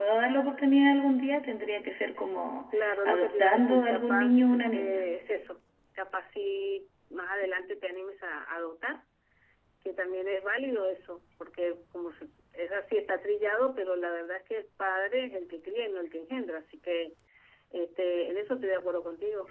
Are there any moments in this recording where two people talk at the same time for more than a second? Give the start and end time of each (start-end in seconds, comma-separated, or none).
2.8-5.0